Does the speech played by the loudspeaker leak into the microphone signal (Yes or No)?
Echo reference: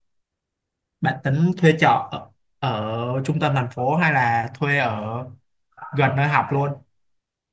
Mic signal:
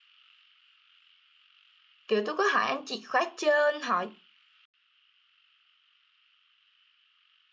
No